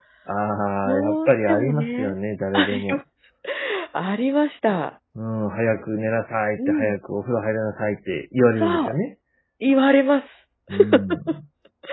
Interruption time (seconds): 1 s

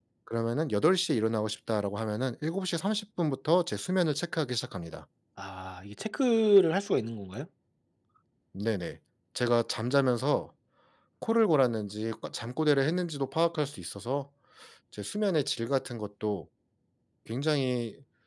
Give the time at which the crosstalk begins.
none

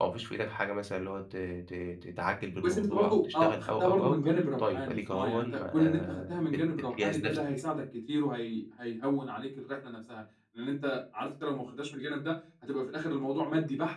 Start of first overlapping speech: 3 s

